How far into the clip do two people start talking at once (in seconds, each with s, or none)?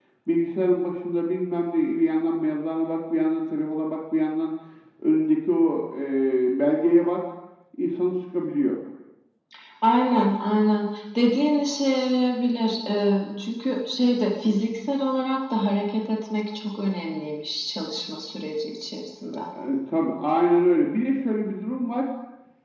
none